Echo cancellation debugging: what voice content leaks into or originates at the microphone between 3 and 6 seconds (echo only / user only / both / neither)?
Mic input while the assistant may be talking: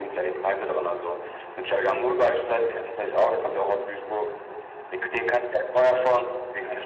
echo only